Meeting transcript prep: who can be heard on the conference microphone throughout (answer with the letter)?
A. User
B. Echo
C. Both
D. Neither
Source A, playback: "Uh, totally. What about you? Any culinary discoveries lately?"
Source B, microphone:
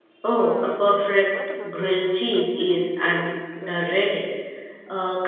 C